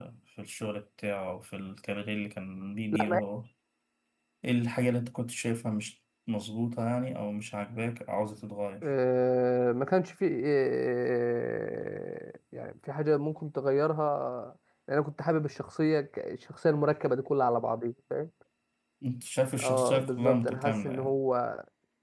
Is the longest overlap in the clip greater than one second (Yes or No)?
Yes